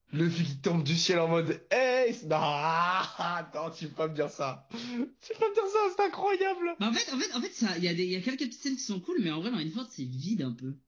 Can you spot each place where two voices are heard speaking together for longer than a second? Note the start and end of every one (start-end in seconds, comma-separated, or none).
none